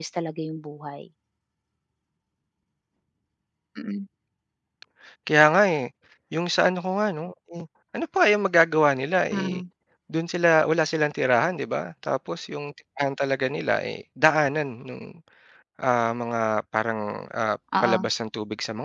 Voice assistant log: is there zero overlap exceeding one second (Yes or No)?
Yes